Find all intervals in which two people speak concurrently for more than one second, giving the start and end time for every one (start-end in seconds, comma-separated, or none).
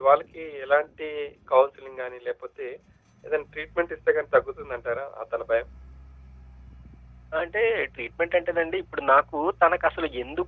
none